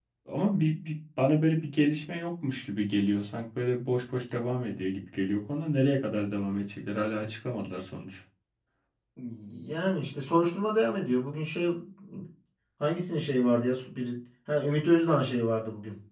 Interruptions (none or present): none